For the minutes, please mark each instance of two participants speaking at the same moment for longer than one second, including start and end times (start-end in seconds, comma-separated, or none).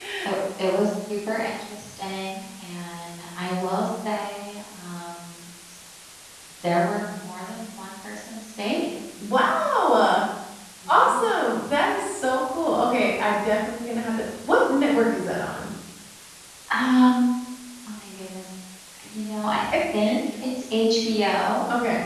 none